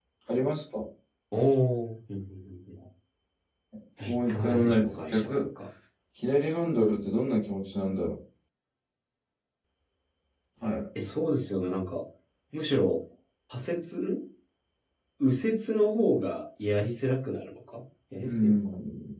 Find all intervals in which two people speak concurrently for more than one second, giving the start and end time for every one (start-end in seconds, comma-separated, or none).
4.1-5.5